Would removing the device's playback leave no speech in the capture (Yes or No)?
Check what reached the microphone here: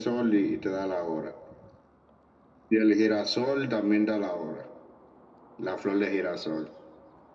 Yes